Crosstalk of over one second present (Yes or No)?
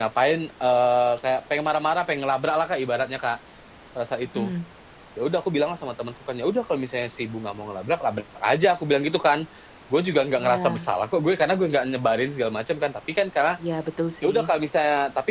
No